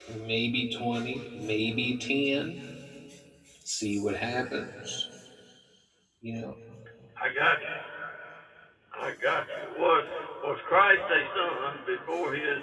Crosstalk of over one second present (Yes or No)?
No